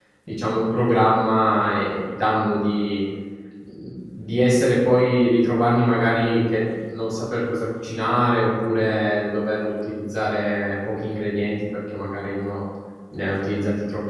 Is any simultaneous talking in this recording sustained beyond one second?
No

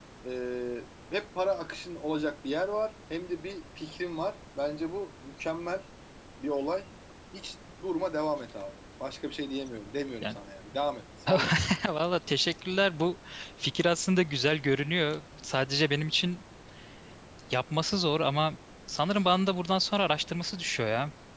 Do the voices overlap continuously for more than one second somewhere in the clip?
No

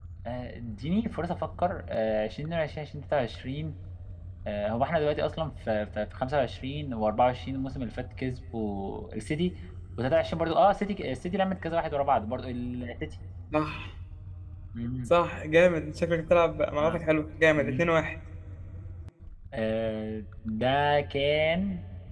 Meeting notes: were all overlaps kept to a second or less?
Yes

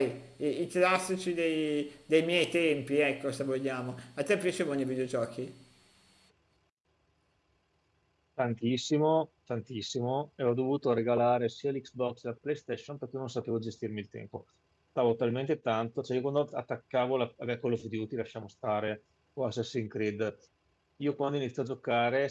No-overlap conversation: Yes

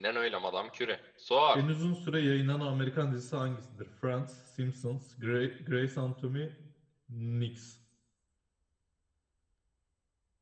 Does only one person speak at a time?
Yes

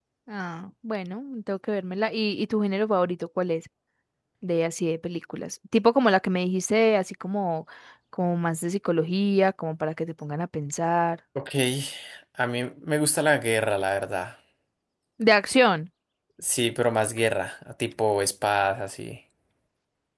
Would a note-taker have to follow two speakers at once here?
No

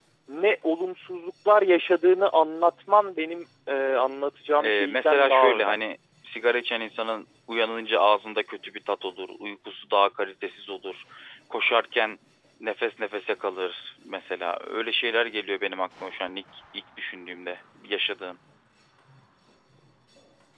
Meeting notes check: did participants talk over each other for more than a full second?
Yes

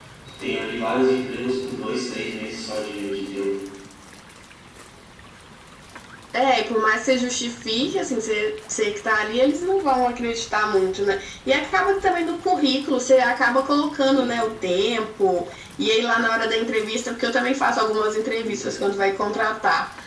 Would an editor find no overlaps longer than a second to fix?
Yes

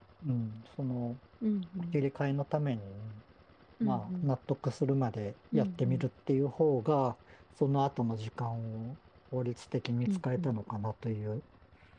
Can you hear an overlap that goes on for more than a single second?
No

